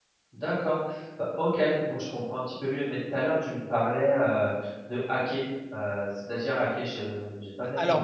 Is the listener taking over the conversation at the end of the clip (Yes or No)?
Yes